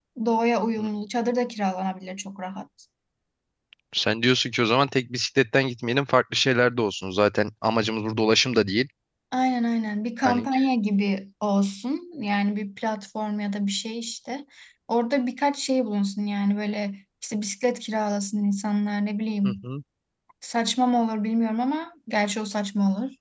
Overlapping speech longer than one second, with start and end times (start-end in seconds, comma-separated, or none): none